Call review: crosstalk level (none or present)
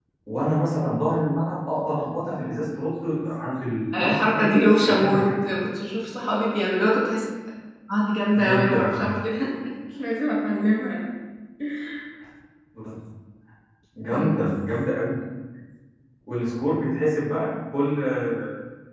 present